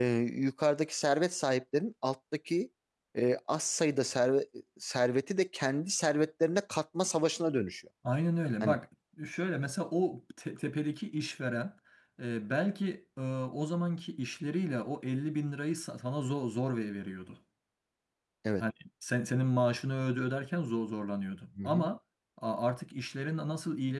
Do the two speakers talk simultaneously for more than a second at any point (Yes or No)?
No